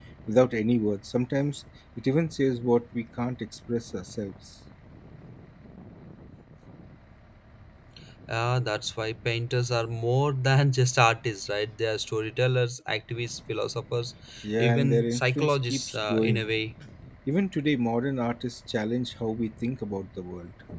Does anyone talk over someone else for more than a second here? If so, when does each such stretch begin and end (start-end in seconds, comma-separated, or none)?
14.6-16.5